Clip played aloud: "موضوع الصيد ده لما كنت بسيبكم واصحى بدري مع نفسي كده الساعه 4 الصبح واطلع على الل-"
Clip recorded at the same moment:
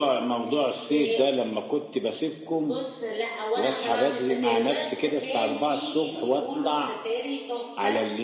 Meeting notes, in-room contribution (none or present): present